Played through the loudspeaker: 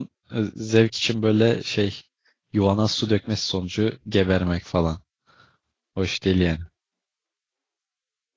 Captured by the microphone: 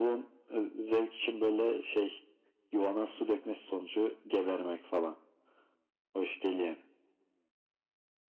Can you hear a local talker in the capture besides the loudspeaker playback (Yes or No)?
No